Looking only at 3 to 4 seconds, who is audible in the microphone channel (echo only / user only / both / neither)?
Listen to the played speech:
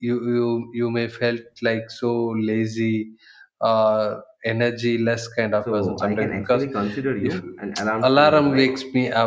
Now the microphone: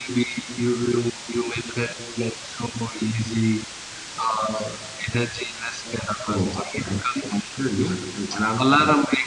echo only